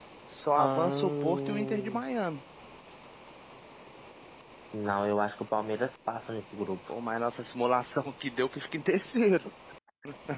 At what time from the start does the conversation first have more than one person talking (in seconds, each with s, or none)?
0.5 s